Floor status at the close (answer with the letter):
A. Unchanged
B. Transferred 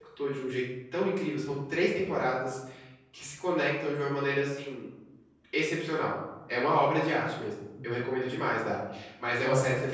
A